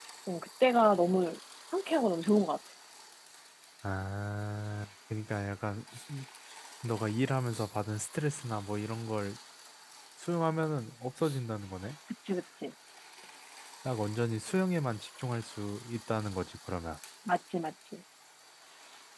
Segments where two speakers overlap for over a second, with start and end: none

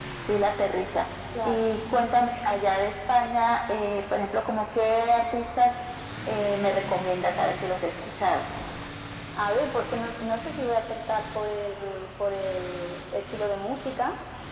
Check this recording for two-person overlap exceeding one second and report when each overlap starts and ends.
none

